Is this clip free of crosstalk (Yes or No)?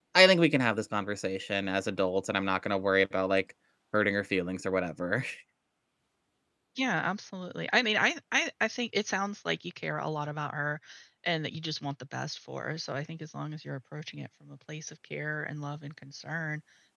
Yes